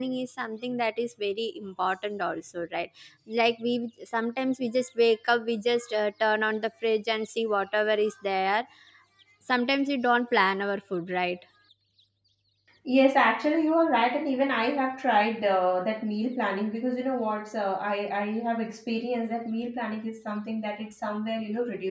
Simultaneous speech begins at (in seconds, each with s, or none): none